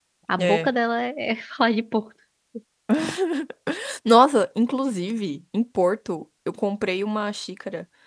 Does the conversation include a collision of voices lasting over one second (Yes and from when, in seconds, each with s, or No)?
No